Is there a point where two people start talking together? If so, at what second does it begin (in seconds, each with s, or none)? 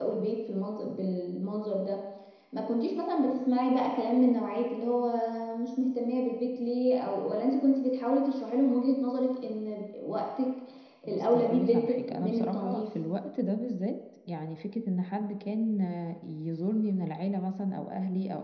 11.1 s